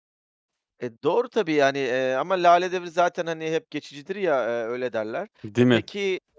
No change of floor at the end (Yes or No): Yes